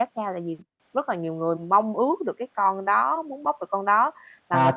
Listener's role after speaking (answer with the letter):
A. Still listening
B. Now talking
B